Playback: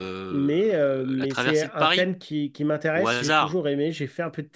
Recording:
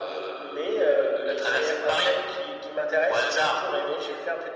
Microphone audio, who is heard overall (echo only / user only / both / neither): echo only